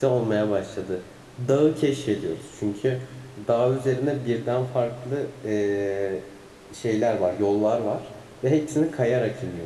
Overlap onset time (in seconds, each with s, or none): none